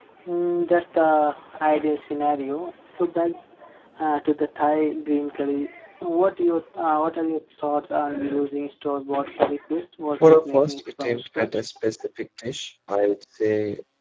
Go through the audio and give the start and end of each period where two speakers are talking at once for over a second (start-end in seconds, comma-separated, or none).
10.2-11.6